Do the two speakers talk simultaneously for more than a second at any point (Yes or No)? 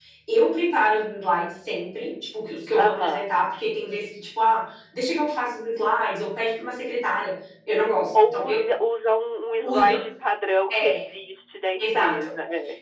No